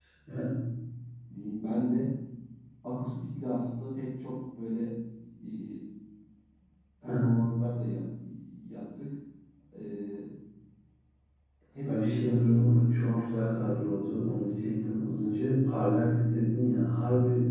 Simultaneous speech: Yes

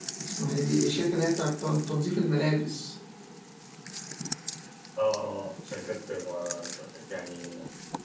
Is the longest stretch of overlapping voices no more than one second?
Yes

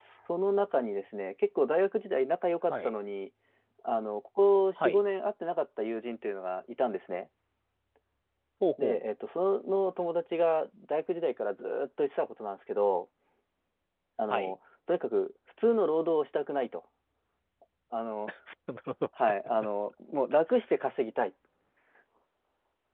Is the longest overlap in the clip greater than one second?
No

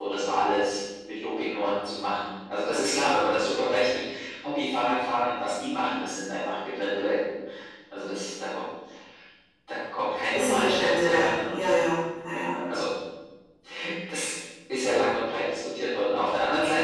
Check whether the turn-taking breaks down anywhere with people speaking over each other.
Yes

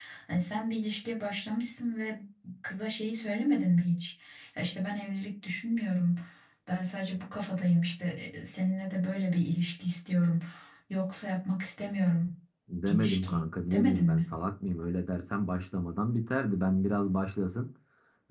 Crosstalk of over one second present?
Yes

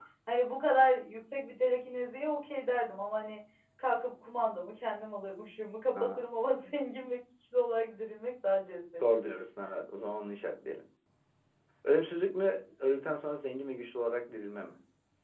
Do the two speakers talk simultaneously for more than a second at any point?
No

